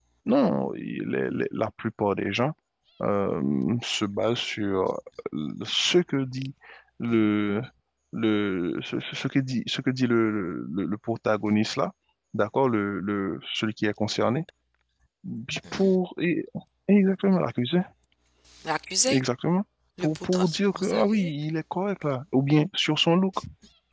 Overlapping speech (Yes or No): Yes